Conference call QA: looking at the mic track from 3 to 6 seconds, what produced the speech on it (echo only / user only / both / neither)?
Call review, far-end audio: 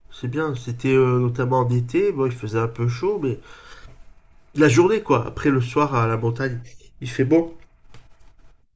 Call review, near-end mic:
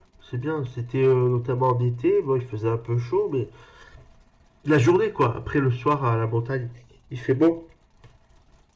echo only